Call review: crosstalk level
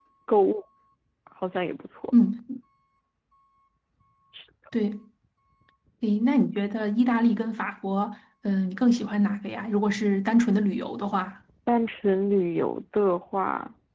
none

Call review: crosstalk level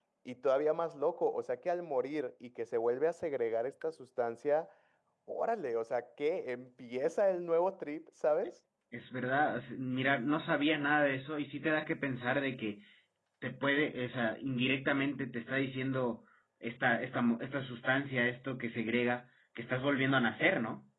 none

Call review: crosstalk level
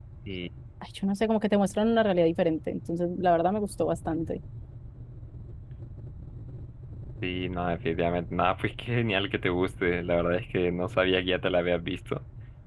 none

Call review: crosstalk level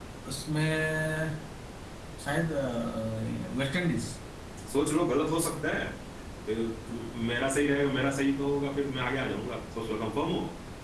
none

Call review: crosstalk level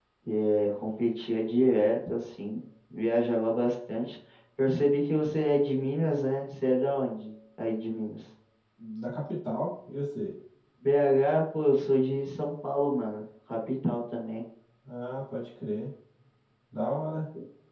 none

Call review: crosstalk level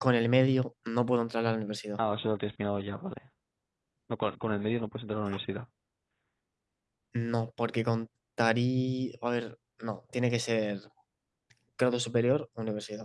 none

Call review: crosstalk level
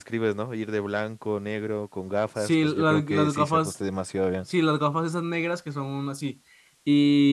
present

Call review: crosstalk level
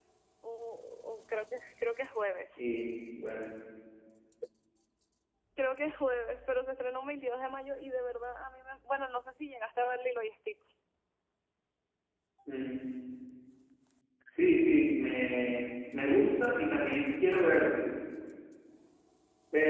none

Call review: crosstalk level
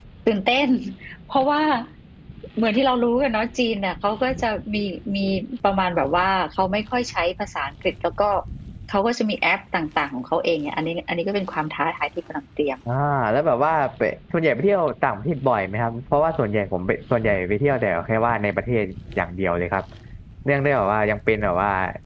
none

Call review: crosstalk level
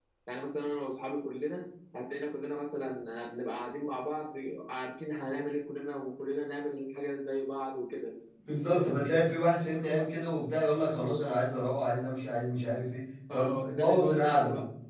present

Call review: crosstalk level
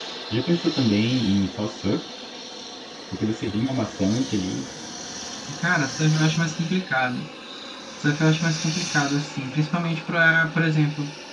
none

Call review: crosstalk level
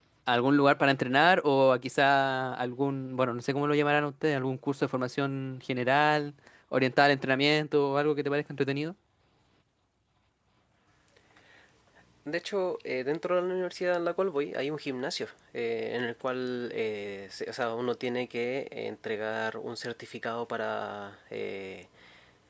none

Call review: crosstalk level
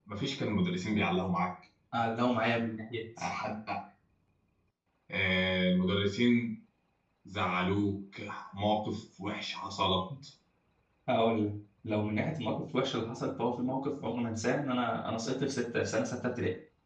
none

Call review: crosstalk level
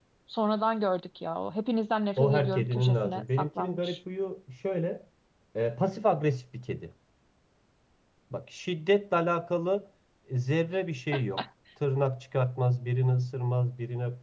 present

